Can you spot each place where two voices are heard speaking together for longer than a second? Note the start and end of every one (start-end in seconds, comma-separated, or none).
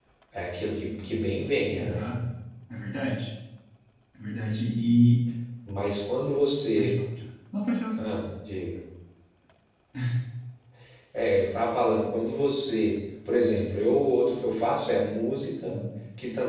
none